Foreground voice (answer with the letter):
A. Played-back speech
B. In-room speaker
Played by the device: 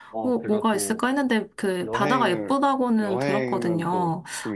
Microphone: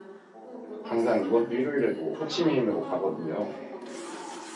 B